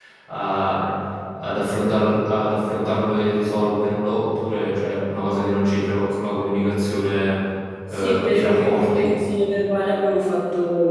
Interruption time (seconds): 8 s

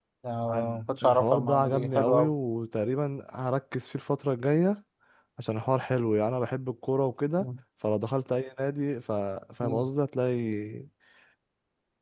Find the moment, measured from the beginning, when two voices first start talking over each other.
1 s

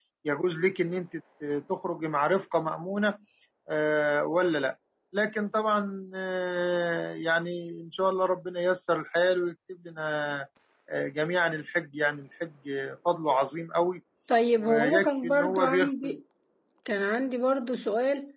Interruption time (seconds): 15 s

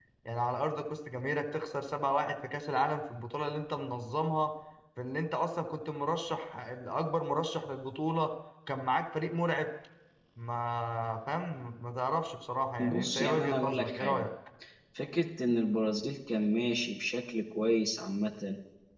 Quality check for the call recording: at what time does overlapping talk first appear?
13 s

